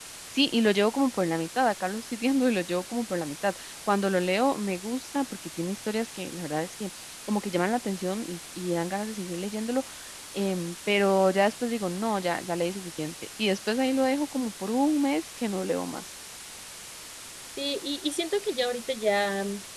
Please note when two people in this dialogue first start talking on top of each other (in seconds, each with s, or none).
none